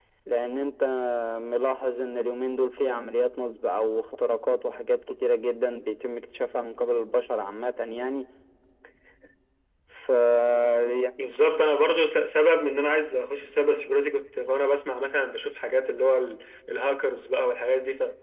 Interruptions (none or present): none